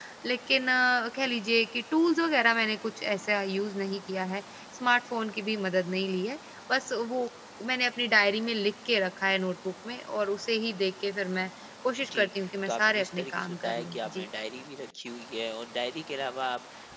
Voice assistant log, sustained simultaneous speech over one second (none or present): present